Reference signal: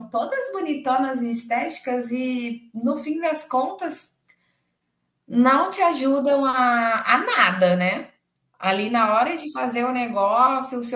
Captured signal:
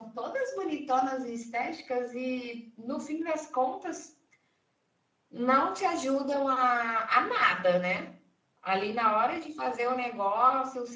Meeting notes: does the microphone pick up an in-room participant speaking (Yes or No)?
No